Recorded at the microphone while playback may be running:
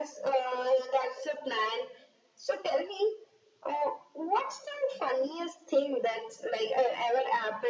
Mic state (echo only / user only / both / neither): echo only